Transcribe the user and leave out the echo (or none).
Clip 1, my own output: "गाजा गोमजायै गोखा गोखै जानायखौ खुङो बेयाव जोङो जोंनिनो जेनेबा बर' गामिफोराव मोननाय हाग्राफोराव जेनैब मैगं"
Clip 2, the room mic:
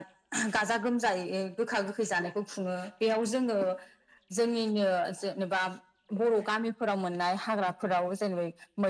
none